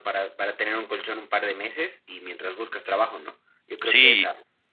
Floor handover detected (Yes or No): No